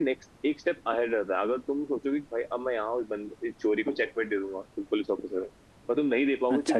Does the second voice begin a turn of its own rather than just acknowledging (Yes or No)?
No